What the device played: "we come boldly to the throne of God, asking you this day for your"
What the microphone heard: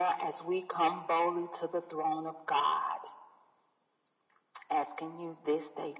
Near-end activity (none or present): none